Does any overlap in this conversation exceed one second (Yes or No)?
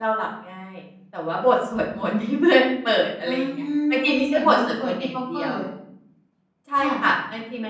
Yes